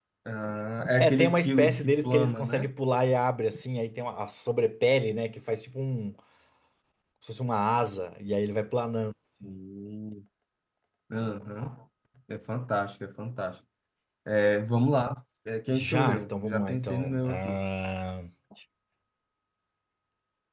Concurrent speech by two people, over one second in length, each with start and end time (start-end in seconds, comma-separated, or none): 1.0-2.7, 15.7-17.6